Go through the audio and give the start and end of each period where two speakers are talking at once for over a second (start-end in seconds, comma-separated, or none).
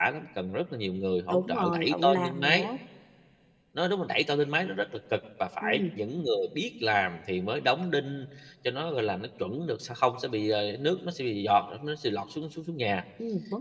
1.3-2.7